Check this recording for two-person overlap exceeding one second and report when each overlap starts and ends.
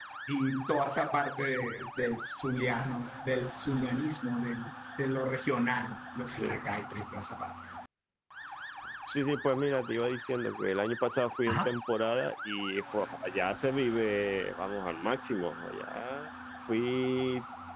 none

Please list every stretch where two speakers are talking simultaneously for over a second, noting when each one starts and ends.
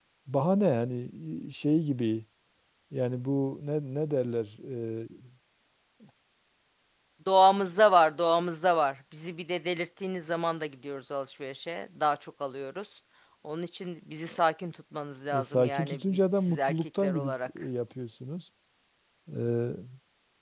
15.3-17.6

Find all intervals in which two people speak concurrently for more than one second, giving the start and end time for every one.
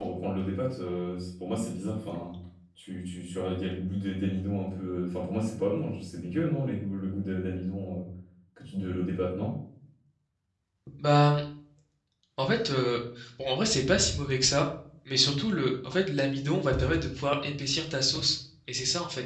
none

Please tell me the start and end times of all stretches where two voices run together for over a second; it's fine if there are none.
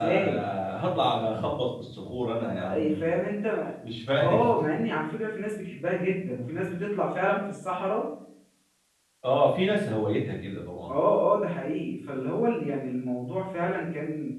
none

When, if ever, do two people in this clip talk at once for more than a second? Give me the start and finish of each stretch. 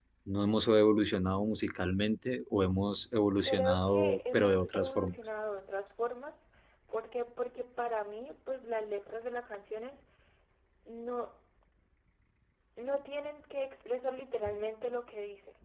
3.4-5.2

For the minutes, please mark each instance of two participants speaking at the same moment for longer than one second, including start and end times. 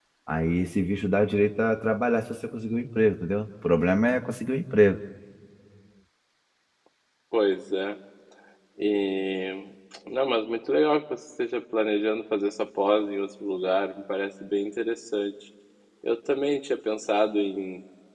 none

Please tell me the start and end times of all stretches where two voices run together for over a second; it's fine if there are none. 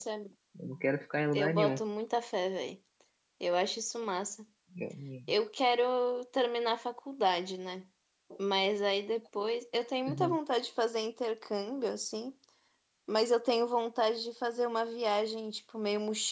none

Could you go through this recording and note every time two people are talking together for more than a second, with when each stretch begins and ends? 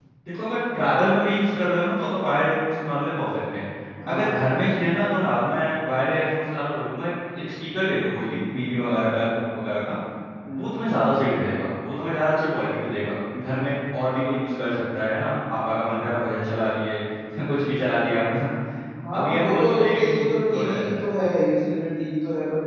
19.1-21.1

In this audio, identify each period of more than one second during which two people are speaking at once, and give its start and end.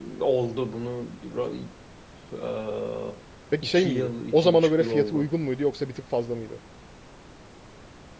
3.6-5.3

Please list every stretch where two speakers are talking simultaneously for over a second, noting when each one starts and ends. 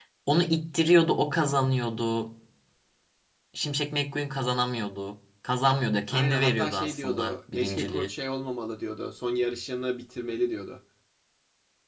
6.1-8.1

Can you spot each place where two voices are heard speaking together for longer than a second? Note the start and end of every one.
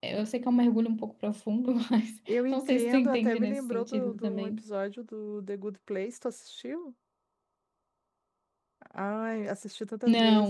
2.5-4.6

